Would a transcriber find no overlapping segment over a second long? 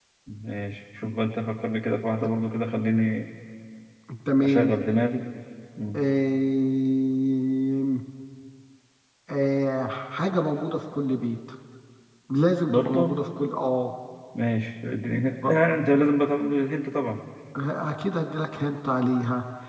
Yes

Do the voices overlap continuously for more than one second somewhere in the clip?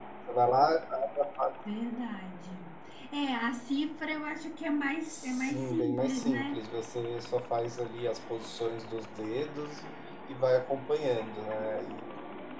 Yes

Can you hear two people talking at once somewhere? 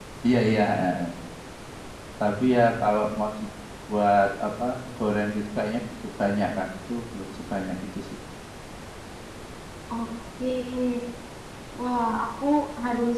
No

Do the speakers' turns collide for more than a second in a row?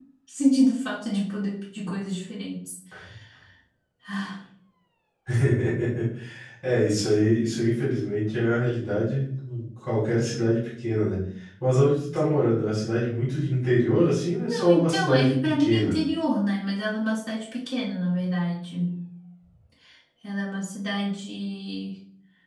Yes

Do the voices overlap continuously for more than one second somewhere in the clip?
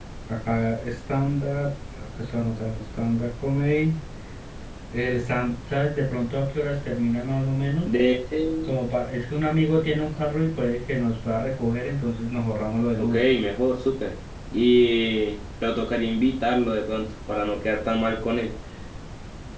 No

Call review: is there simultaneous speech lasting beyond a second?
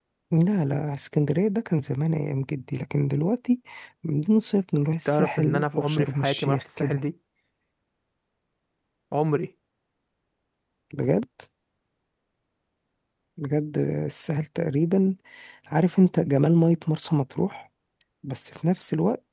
Yes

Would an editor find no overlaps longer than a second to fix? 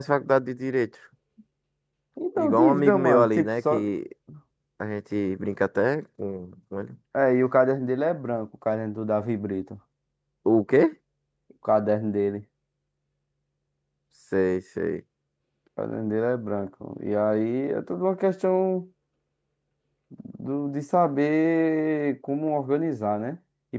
No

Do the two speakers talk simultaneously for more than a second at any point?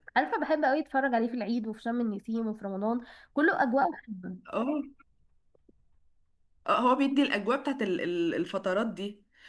No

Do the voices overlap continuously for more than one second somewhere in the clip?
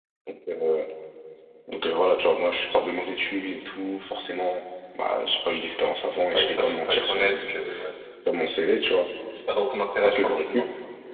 Yes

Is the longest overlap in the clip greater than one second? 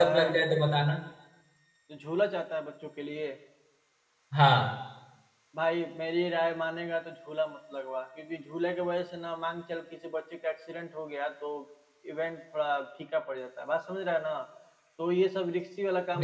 No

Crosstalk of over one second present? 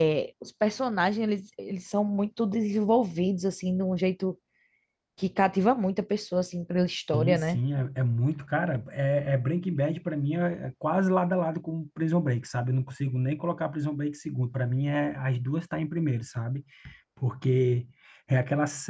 No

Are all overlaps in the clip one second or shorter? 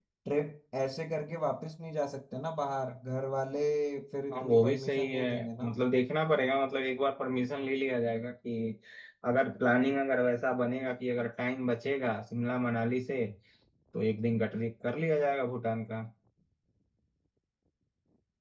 No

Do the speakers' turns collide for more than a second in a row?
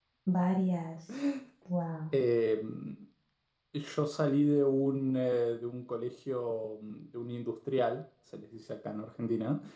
No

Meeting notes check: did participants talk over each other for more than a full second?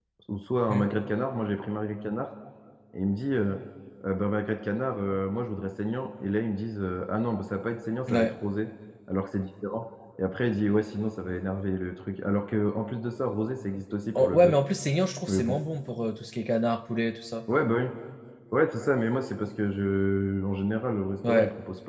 No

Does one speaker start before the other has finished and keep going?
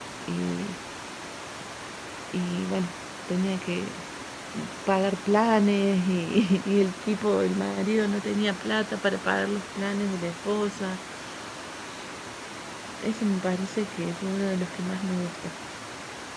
No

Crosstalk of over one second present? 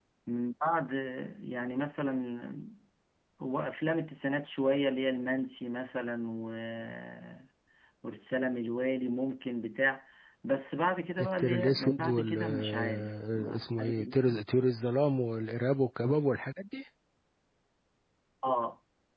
Yes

